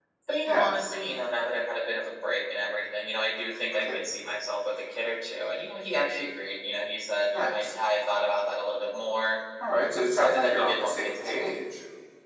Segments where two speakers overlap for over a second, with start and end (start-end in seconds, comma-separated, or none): 9.9-11.5